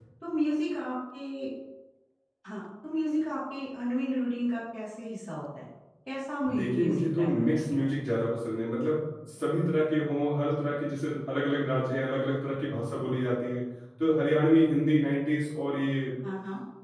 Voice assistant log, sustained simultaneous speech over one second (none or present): present